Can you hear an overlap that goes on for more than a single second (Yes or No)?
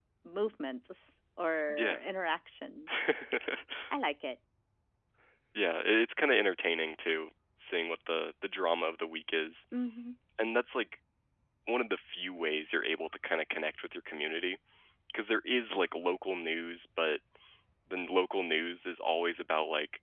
No